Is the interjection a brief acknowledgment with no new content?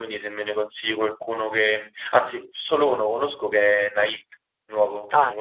No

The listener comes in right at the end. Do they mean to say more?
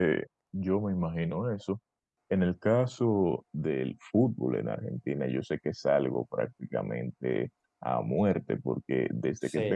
No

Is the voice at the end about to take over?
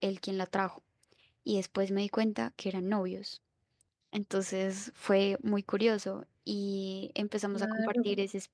No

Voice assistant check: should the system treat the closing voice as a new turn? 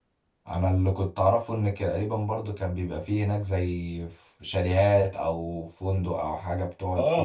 Yes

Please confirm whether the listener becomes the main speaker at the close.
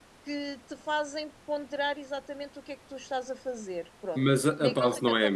Yes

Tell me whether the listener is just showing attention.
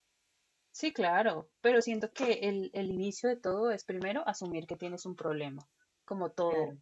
Yes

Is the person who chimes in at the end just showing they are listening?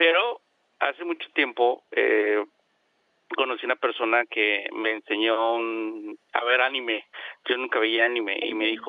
Yes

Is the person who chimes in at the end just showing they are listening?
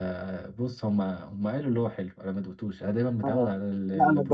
No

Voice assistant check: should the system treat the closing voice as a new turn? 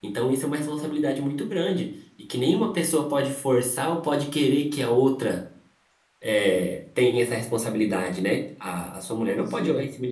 No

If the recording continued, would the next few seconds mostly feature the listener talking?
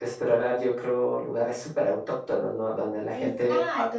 Yes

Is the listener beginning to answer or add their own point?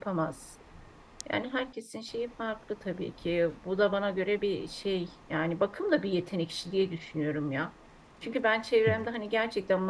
No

